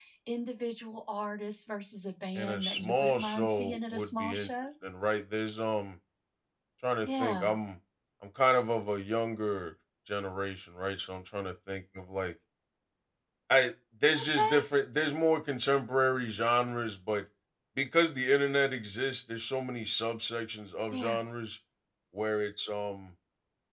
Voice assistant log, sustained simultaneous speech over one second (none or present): present